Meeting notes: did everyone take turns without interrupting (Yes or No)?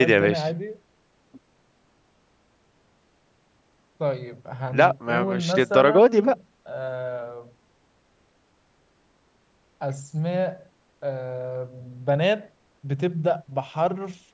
No